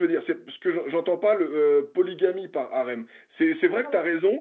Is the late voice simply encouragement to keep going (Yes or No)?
Yes